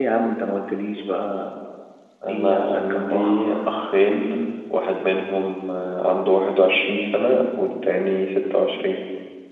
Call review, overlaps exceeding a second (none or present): present